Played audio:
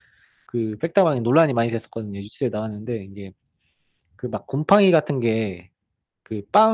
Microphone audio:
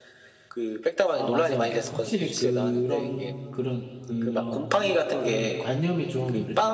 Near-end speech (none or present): present